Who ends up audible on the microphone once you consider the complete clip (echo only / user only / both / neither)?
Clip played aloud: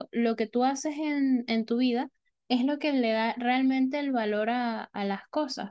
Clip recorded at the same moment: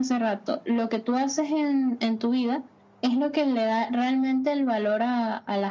echo only